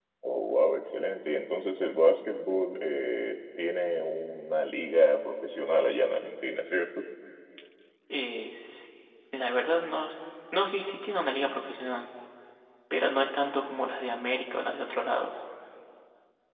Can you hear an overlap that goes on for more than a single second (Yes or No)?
No